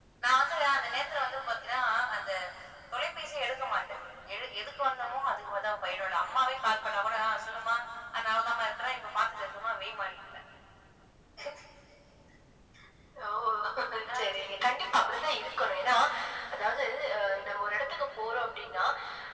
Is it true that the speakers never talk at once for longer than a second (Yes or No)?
Yes